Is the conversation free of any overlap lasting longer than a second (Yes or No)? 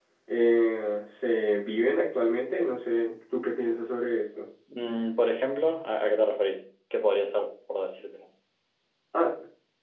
Yes